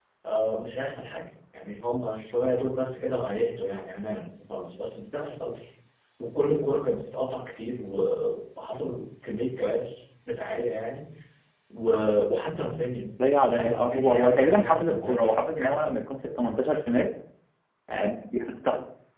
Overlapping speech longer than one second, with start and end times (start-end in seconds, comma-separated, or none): 13.5-15.9